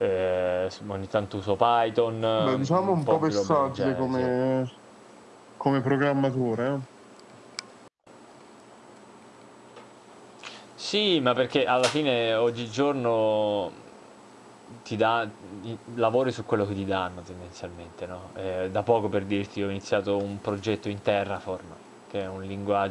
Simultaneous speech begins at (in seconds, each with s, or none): 2.4 s